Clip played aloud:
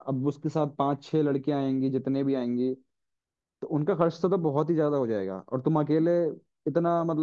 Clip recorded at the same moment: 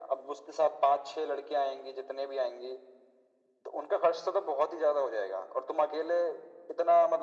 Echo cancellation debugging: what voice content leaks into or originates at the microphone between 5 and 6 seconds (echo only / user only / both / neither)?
echo only